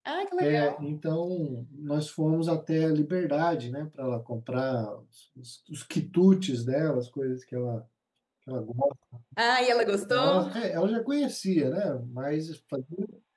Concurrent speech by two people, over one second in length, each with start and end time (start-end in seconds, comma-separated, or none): none